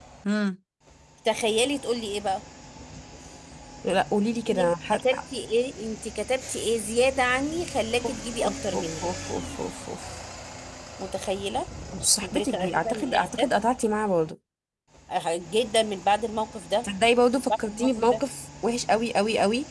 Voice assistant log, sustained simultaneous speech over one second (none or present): present